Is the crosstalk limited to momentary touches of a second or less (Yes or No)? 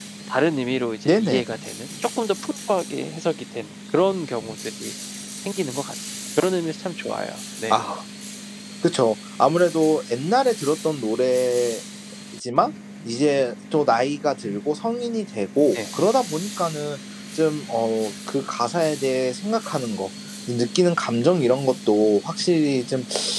Yes